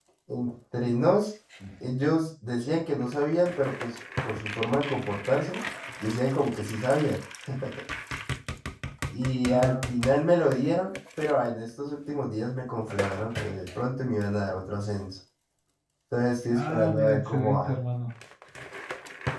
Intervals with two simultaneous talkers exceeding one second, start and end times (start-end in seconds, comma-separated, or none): 16.5-17.8